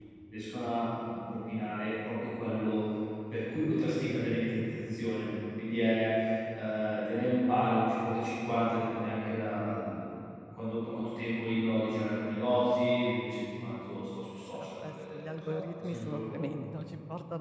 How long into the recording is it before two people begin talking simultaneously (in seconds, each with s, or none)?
14.5 s